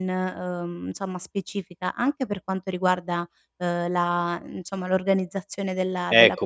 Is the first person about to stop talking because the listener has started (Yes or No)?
Yes